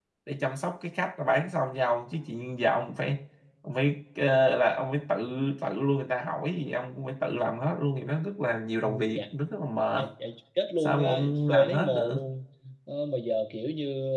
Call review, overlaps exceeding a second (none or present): present